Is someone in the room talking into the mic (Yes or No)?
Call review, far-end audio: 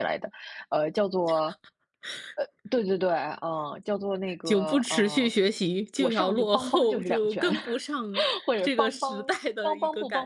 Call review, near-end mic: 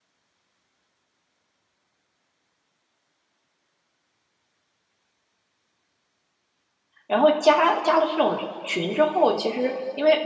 Yes